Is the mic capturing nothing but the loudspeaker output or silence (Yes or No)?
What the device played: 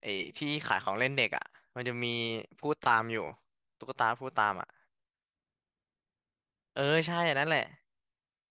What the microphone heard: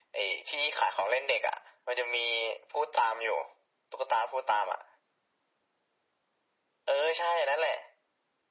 Yes